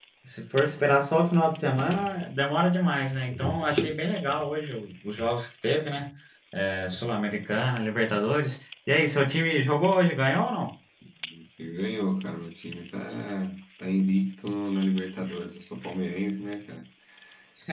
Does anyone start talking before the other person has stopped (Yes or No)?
No